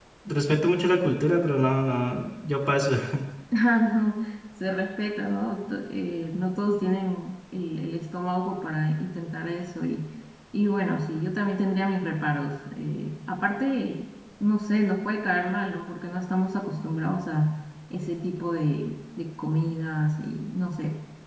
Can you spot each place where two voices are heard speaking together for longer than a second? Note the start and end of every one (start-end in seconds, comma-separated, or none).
none